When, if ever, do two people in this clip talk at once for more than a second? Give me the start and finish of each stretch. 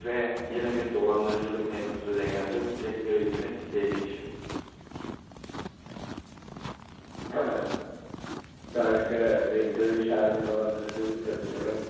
none

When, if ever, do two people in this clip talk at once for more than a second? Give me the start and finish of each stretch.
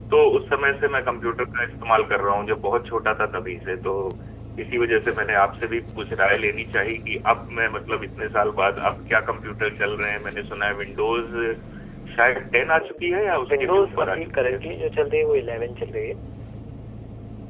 12.8-14.6

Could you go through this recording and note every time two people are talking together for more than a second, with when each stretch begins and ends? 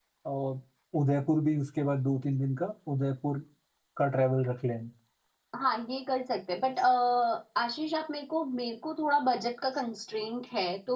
none

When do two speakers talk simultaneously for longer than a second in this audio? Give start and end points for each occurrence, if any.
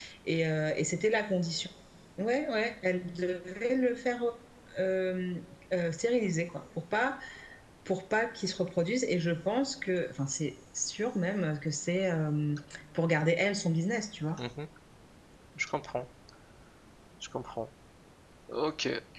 none

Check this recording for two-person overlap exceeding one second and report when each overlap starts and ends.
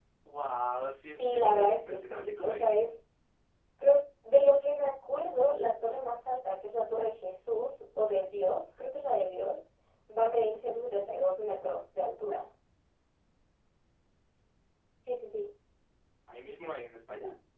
1.2-2.8

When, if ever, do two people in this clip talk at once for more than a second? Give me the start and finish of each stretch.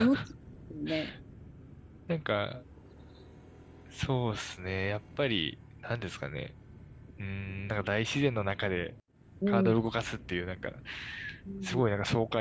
none

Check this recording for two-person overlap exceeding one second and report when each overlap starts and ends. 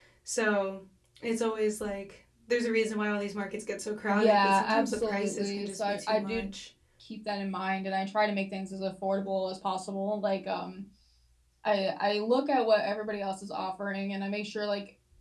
4.1-6.5

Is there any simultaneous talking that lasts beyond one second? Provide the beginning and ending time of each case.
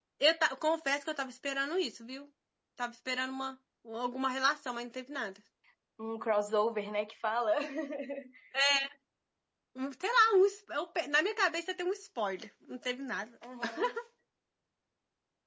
none

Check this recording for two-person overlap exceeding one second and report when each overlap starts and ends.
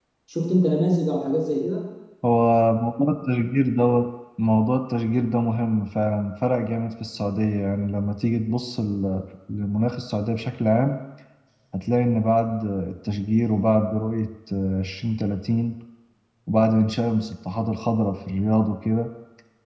none

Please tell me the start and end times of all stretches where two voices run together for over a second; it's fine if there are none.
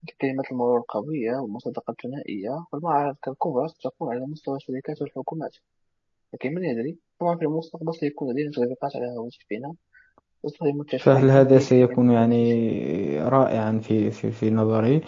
11.0-12.6

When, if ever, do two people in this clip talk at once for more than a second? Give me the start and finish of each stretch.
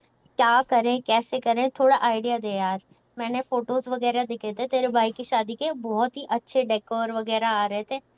none

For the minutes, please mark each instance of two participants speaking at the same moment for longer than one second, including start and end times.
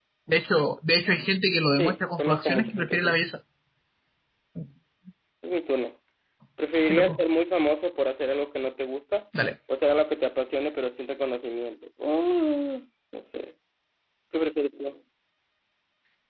1.7-3.2

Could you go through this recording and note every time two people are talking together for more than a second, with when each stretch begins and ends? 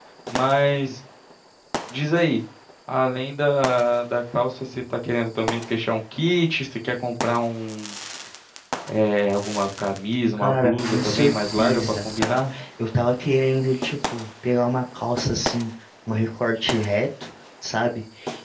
10.4-12.5

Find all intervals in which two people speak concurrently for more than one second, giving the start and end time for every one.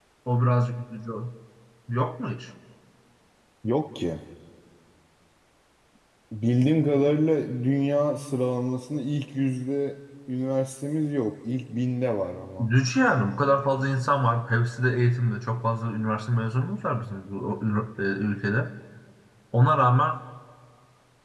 none

